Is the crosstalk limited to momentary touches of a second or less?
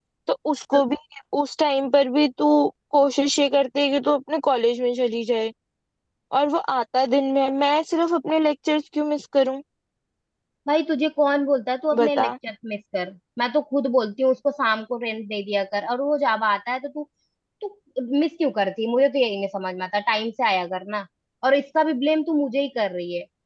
Yes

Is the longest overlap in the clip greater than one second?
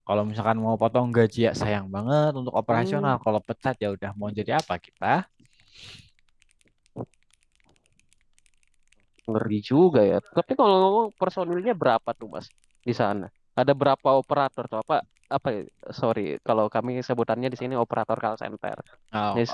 No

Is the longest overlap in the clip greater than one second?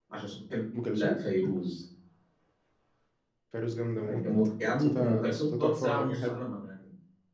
Yes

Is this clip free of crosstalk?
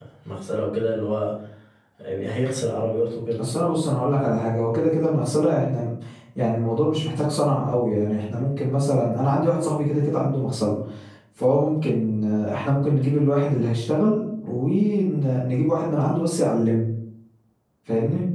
Yes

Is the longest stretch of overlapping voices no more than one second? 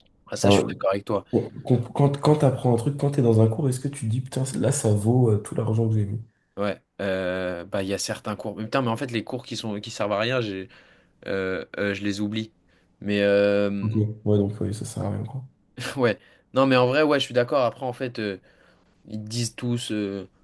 Yes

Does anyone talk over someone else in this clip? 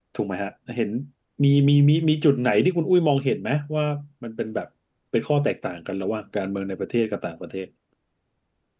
No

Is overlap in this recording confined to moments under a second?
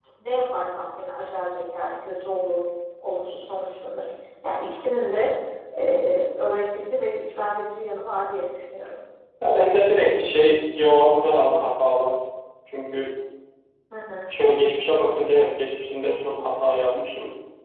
Yes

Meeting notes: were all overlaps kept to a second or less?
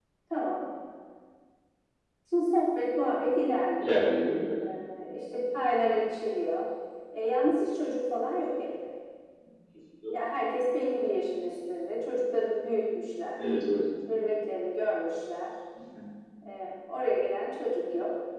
Yes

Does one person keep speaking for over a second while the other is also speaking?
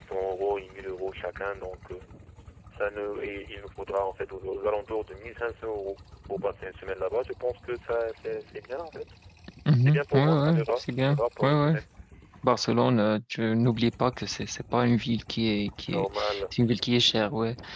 Yes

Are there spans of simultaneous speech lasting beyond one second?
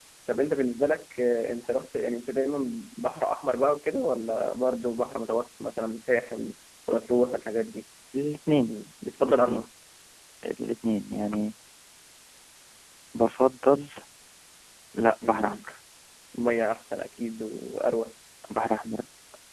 No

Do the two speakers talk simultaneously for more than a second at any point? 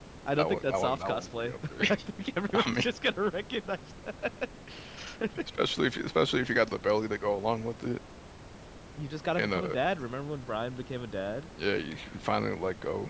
Yes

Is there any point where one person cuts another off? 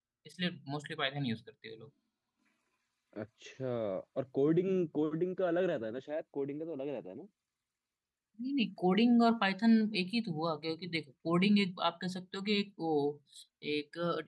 No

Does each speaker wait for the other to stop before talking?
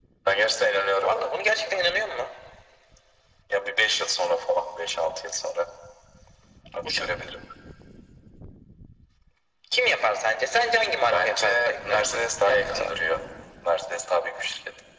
No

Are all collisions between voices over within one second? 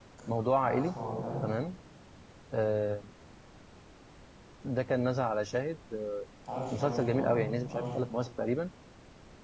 No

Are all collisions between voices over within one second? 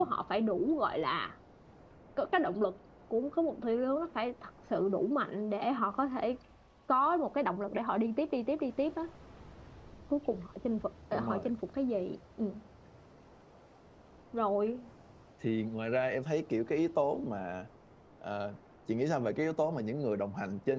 Yes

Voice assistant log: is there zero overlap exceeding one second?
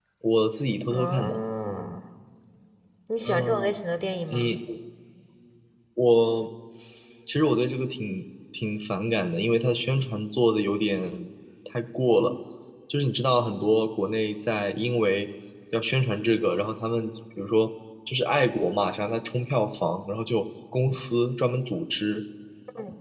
Yes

